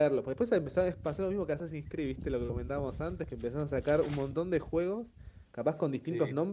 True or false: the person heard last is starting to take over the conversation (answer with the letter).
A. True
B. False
B